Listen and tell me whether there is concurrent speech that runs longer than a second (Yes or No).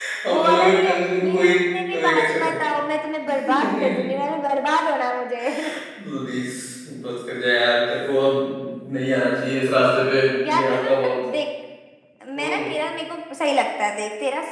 Yes